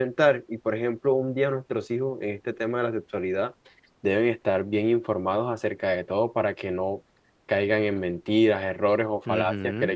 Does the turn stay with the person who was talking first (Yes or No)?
Yes